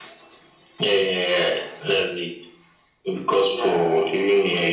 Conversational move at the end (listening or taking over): listening